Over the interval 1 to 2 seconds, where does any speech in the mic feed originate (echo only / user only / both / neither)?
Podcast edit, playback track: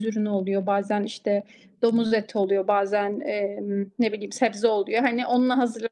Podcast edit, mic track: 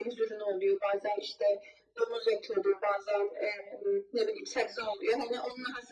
echo only